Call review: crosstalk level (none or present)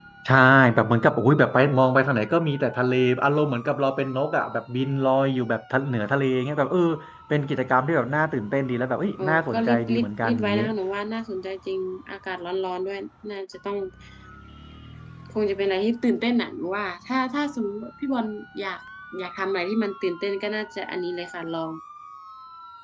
present